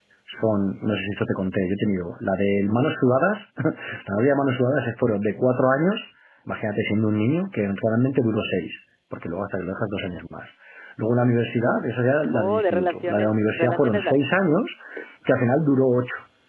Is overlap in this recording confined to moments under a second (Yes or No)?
No